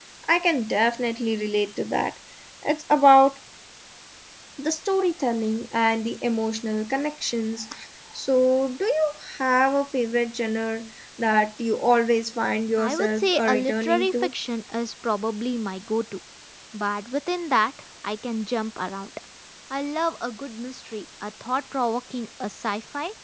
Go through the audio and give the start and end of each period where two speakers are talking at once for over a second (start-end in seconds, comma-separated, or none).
12.8-14.3